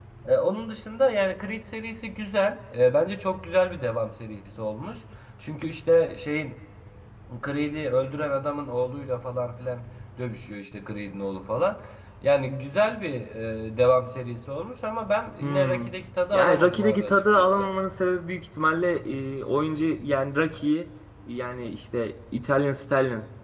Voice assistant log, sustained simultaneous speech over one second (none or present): present